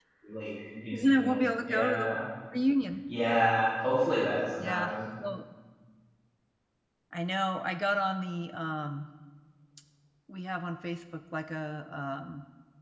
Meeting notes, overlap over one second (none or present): present